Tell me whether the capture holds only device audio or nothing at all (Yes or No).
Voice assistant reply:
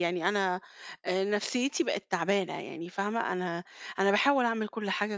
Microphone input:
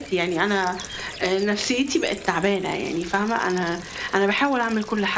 Yes